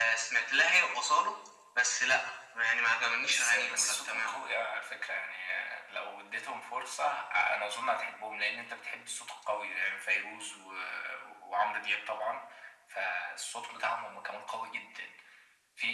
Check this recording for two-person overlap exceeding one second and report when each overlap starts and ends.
3.1-4.4

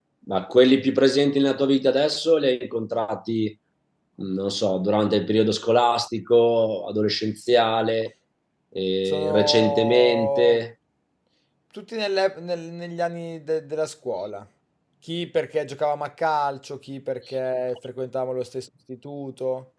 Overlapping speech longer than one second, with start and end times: 9.1-10.6

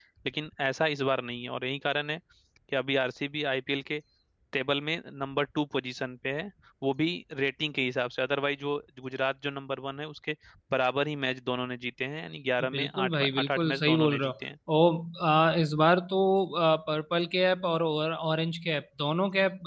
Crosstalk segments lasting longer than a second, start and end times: 12.7-14.3

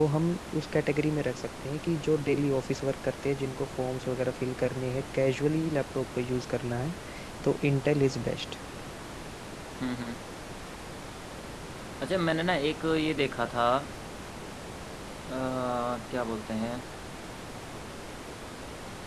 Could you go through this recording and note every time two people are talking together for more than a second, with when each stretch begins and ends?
none

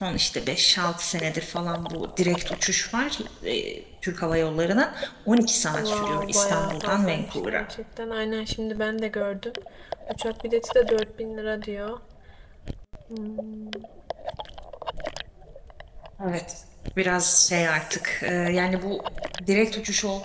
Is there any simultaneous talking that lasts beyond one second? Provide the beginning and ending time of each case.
5.7-7.6

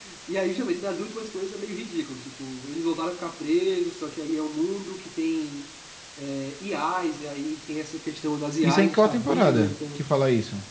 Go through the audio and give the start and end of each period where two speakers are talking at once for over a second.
8.6-10.0

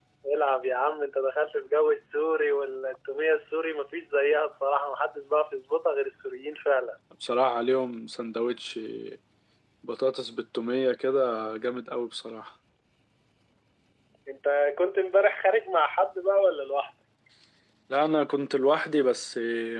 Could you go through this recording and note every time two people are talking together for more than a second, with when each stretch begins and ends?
none

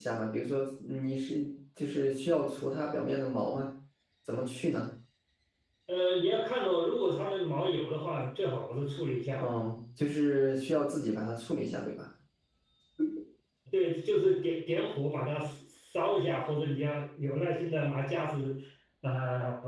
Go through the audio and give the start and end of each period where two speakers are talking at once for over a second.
none

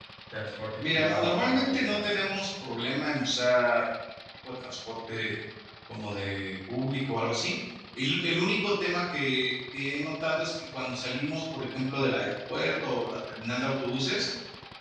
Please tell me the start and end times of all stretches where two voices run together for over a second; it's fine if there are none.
0.8-2.2

